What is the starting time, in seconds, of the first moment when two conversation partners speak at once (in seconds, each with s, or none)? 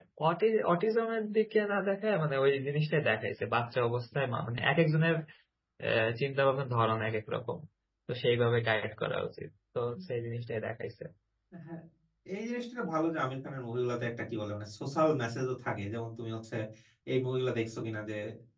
none